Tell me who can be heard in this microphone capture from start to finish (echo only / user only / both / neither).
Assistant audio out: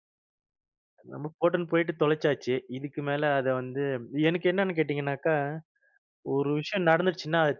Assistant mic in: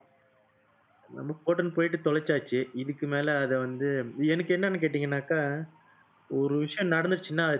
echo only